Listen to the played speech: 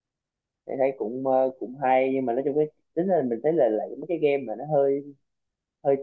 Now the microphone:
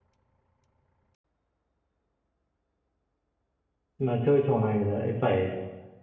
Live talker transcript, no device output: mà chơi trò này lại phải

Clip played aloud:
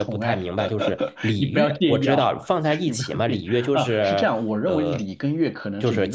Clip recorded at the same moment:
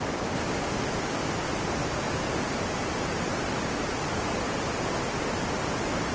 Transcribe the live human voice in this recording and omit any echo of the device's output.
none

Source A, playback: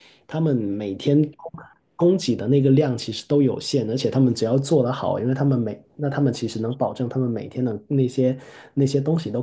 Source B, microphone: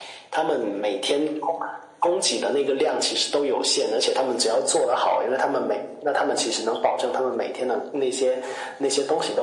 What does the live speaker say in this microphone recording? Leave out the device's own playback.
none

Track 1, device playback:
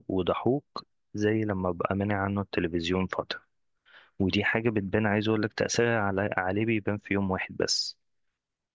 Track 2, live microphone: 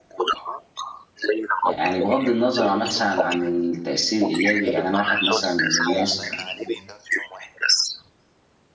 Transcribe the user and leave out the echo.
يعني بغض النظر عن- مثلا عن التأثير الإيجابي يعني أنا واحد مثلا من الناس

